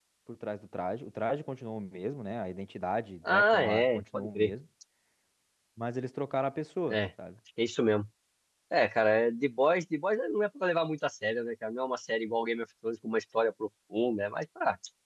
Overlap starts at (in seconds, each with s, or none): 3.3 s